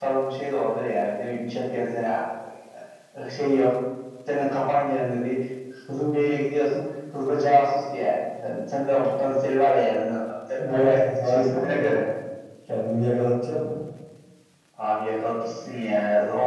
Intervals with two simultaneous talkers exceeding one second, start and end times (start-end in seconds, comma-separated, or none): 10.7-12.0